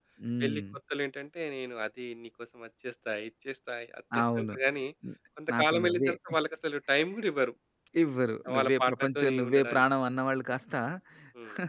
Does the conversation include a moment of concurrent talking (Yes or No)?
Yes